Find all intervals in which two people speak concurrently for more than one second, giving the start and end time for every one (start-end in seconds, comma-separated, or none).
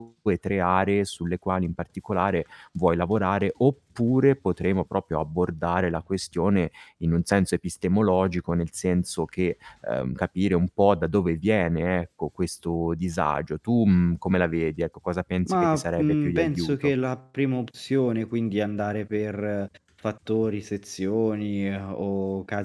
15.5-16.9